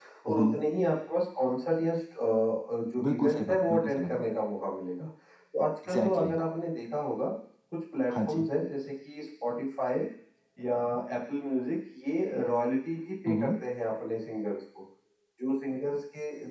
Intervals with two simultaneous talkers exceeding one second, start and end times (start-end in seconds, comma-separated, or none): 3.0-4.2